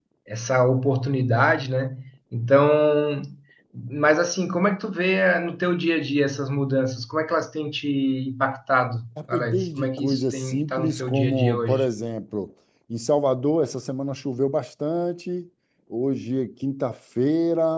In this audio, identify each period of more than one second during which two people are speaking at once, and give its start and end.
9.3-11.9

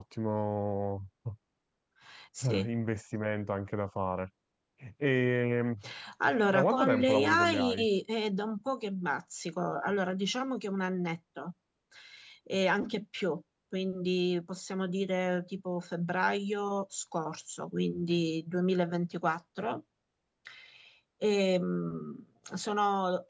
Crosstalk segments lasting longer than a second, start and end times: 6.5-7.9

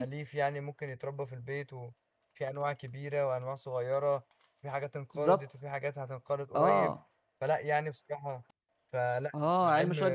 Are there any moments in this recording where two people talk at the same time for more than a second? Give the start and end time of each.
none

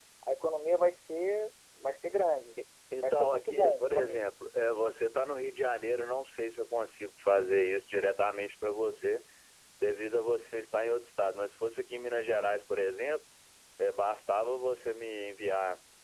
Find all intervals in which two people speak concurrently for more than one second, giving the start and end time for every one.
3.0-4.3

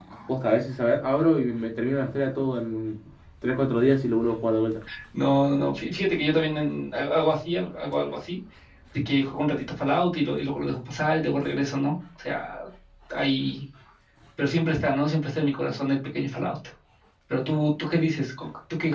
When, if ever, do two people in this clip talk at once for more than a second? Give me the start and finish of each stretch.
none

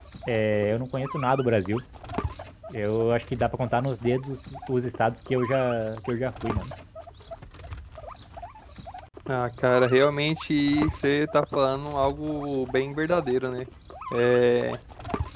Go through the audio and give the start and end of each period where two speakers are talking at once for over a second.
none

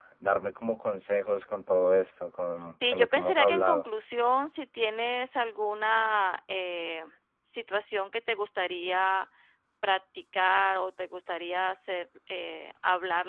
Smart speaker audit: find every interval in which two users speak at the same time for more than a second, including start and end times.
2.5-3.9

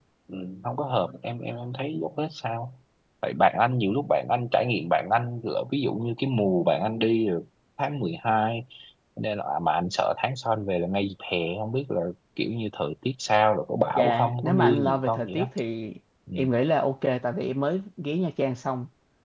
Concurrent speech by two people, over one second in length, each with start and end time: 13.9-15.5

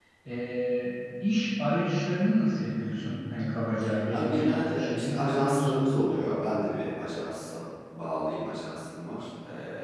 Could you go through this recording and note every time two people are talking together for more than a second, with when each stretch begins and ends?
4.1-5.7

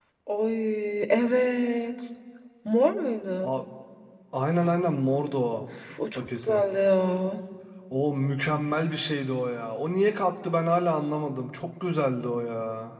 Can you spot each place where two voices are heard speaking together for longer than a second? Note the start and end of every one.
none

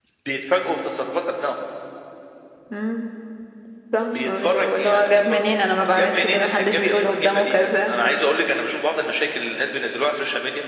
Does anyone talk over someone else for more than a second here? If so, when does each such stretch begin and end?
4.2-5.4, 5.9-7.9

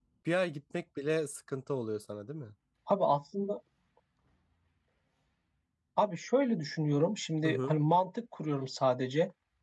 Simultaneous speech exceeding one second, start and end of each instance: none

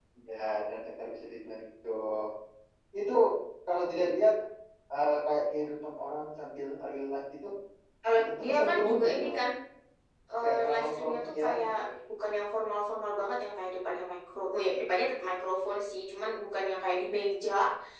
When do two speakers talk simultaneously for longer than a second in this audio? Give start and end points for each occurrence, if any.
8.2-9.4, 10.4-11.7

